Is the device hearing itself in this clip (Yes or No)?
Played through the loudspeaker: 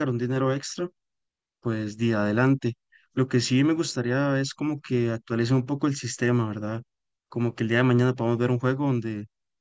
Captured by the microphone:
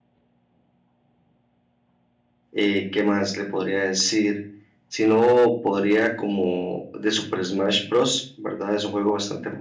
No